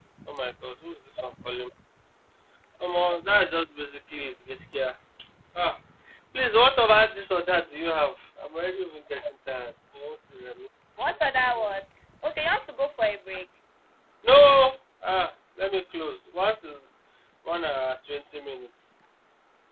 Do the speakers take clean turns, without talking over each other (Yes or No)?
Yes